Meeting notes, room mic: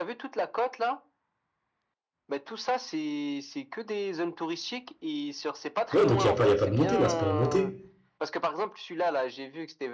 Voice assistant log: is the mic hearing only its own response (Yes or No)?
No